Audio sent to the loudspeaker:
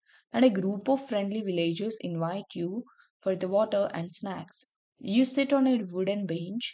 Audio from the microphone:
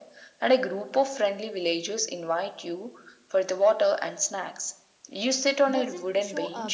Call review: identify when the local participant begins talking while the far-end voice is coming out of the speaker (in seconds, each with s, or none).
5.7 s